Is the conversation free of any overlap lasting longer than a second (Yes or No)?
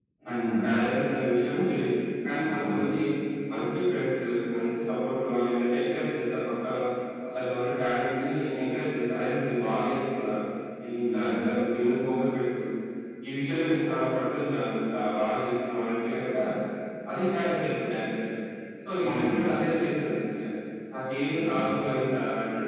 Yes